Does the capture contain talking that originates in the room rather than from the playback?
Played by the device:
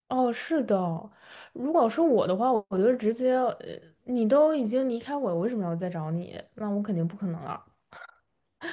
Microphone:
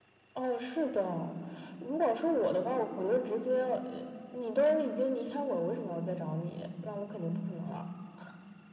No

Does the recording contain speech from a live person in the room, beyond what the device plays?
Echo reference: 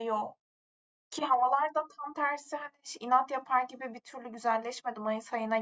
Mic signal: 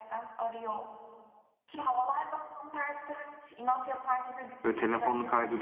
Yes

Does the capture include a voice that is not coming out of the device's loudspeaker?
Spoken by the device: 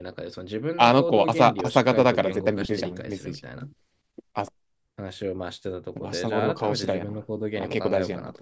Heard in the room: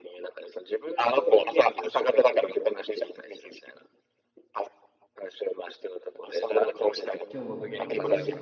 Yes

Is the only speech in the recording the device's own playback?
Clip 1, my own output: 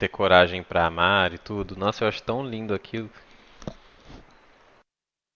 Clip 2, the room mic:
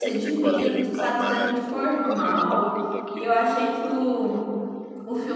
No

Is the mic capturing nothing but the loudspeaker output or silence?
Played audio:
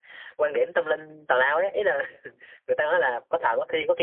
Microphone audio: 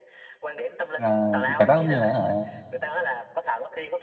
No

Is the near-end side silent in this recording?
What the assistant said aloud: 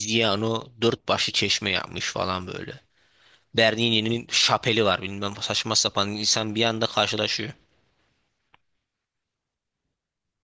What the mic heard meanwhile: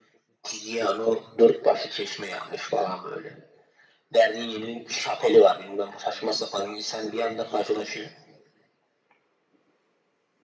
Yes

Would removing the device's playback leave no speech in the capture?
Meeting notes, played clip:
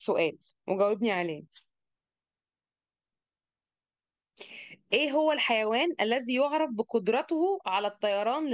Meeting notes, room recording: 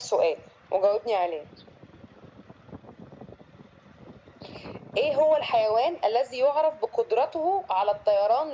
Yes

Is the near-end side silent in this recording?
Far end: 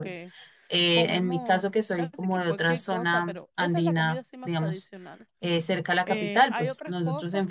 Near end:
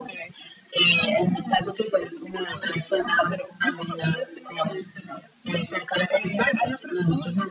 Yes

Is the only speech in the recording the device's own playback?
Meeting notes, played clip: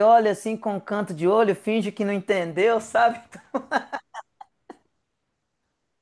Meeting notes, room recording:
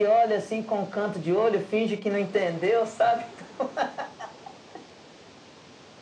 Yes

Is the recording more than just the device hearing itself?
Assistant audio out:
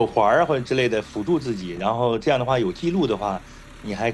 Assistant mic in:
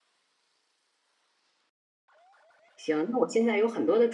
Yes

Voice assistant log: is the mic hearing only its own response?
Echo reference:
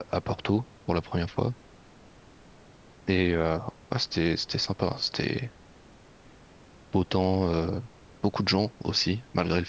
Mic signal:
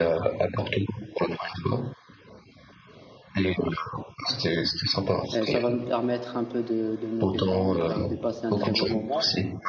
No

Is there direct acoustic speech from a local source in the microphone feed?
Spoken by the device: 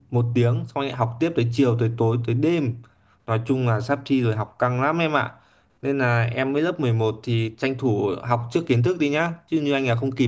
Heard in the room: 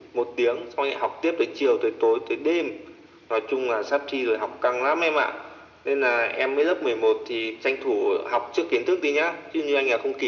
No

